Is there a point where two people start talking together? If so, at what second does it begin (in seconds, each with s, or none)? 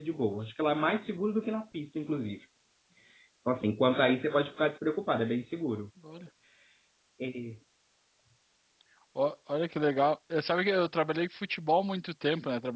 none